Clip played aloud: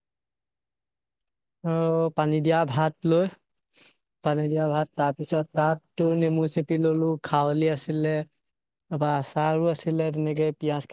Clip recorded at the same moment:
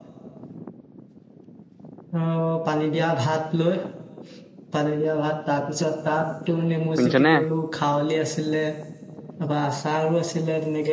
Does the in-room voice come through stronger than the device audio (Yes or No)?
Yes